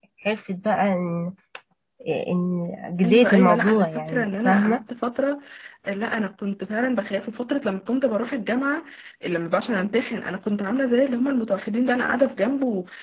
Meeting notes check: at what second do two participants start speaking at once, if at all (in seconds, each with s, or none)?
3.0 s